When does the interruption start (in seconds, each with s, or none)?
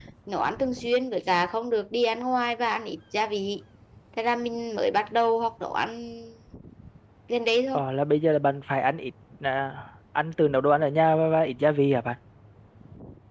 none